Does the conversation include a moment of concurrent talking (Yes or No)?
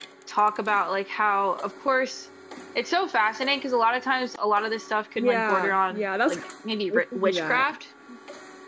Yes